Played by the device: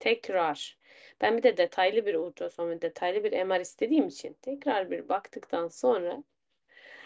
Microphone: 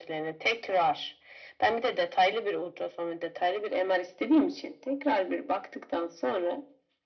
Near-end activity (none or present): none